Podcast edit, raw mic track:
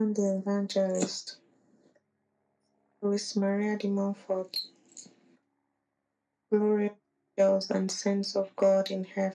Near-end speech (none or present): none